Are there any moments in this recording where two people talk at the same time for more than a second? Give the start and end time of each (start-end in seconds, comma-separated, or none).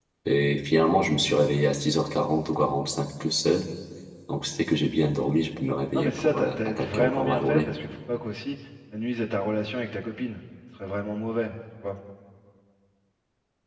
5.9-7.7